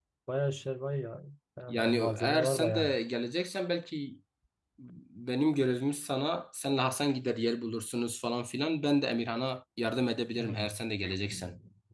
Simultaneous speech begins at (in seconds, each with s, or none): 1.7 s